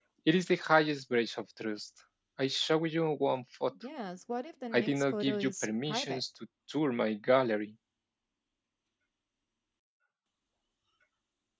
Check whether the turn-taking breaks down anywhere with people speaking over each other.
Yes, from 4.7 s

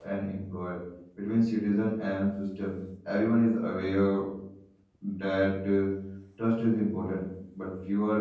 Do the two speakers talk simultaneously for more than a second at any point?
No

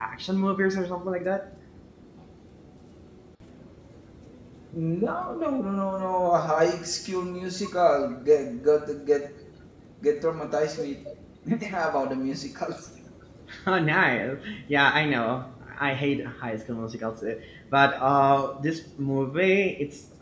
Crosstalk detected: No

